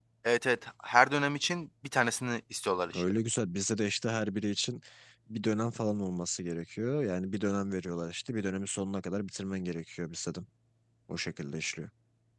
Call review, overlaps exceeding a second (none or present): none